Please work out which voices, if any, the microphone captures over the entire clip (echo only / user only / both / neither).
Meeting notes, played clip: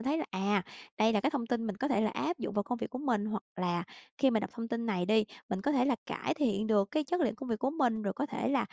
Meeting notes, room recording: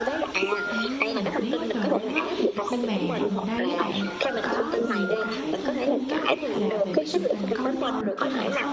both